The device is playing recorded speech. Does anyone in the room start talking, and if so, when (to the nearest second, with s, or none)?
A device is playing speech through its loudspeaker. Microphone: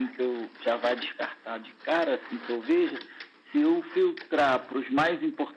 none